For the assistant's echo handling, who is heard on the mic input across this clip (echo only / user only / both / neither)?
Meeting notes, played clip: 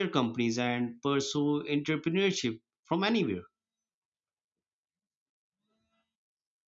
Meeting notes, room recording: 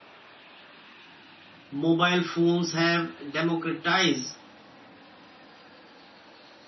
user only